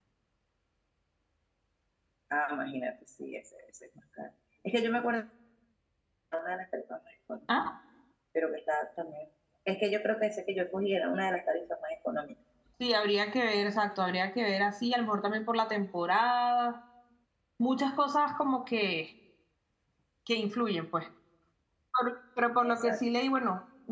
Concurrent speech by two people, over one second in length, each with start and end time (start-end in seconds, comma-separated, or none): none